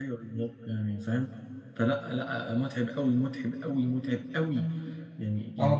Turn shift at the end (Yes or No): Yes